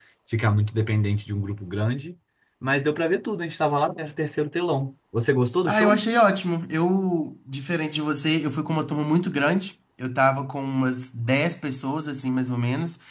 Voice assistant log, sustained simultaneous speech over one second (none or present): none